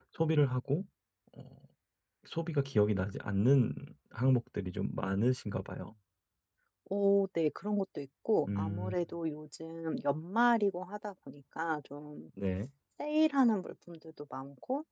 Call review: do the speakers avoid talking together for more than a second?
Yes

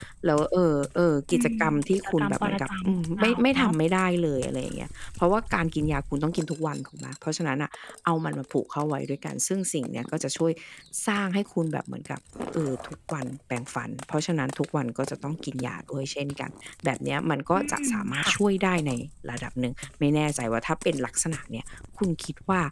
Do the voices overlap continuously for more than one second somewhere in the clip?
Yes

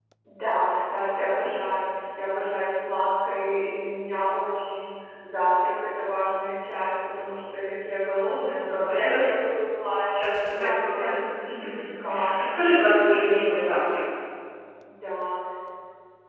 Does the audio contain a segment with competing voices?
Yes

